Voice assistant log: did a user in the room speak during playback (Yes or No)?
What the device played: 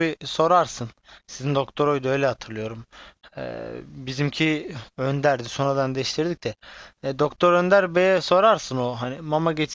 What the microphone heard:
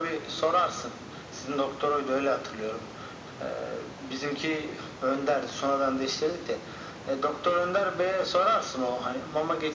No